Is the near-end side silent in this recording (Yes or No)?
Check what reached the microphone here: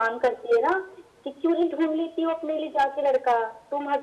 Yes